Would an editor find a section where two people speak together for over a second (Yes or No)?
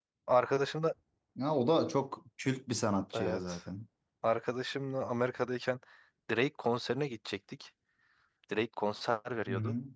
No